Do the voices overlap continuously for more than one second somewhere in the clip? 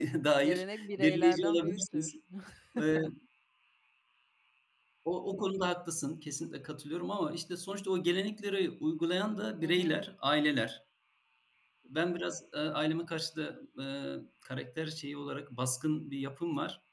Yes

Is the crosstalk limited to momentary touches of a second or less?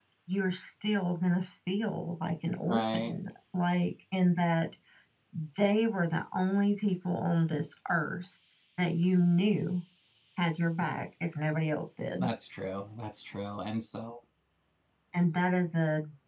Yes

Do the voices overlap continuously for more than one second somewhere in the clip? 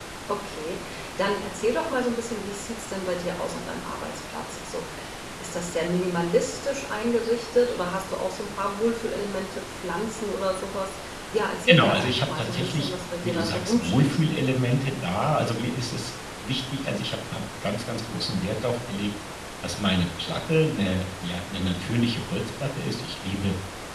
Yes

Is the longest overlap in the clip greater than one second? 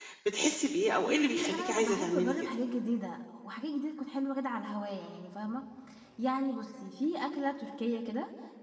Yes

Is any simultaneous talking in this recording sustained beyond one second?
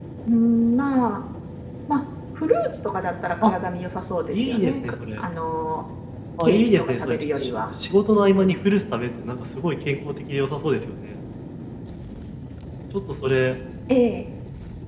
Yes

